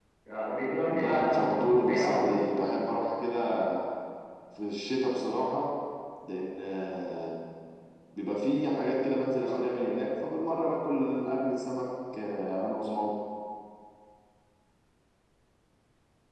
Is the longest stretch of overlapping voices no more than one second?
No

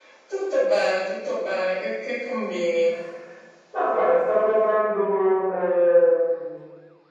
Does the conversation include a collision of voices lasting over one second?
No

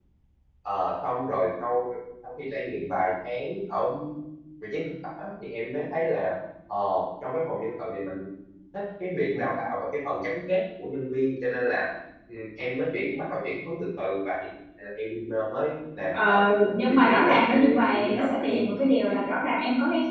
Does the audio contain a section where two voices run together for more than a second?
Yes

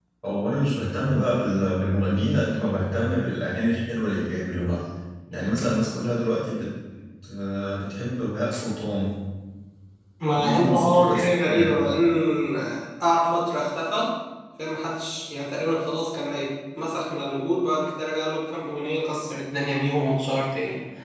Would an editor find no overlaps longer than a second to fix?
No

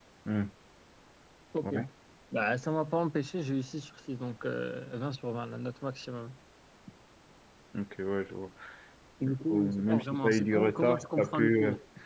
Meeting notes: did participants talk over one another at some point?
Yes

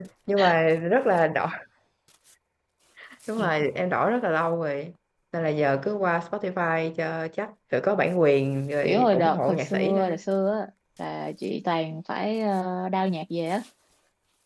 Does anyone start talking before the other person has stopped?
Yes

